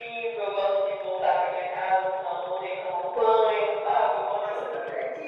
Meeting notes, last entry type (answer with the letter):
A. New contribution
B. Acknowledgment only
A